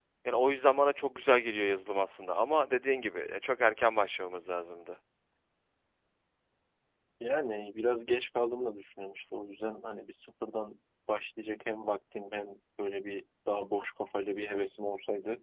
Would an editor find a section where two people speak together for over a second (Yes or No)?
No